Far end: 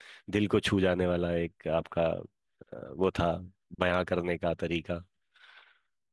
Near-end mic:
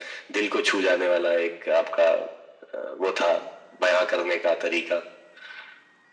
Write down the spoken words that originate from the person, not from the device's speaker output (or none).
none